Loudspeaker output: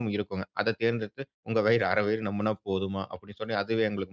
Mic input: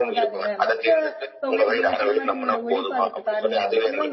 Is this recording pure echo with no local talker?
No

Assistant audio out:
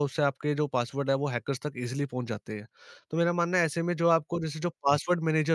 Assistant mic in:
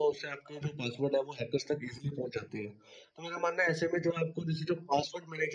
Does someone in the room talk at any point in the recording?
No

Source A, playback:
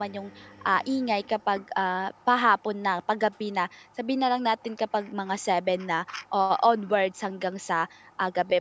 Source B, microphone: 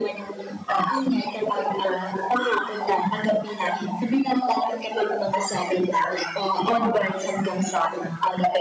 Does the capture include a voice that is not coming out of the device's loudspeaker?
No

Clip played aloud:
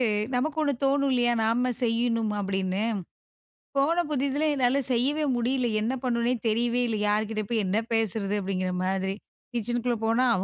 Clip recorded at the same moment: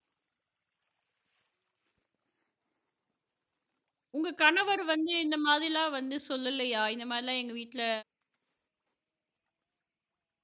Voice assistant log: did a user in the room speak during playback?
Yes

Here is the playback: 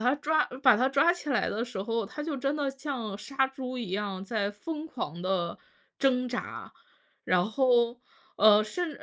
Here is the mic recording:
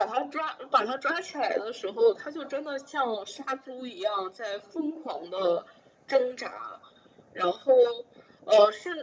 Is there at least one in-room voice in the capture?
No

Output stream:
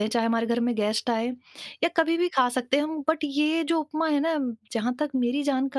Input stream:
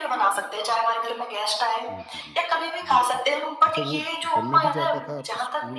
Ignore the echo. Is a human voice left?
Yes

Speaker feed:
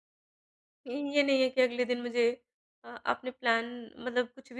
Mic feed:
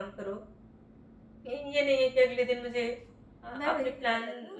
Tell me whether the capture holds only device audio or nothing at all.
No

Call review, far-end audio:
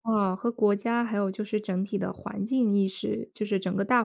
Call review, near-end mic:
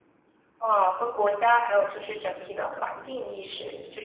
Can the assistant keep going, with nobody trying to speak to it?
Yes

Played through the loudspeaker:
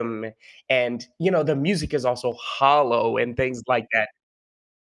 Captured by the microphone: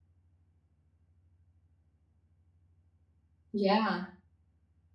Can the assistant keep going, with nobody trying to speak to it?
No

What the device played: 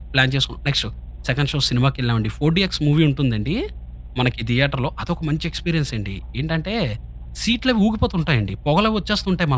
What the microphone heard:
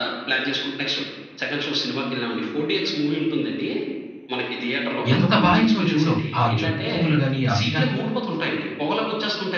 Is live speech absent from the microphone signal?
No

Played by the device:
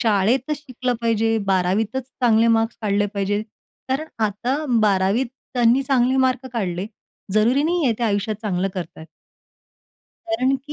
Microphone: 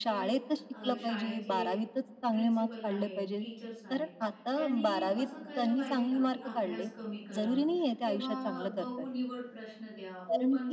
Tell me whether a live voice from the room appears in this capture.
Yes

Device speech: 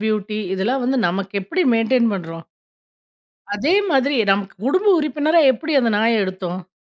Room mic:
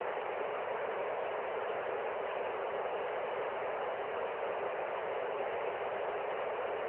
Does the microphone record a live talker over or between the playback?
No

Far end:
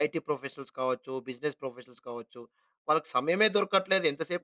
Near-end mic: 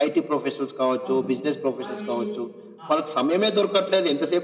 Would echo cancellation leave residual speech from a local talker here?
Yes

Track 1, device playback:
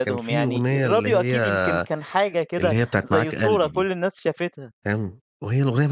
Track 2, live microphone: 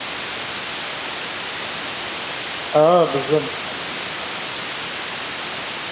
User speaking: Yes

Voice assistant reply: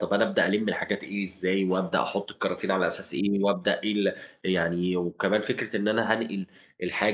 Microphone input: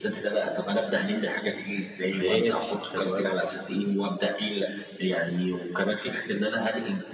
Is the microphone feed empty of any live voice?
No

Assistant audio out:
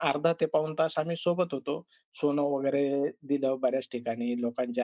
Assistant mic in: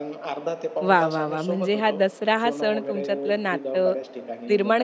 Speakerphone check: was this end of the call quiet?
No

